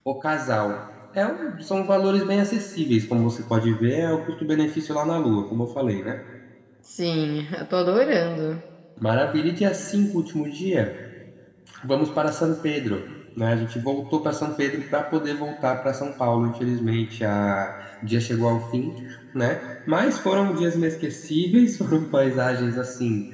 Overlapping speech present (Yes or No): No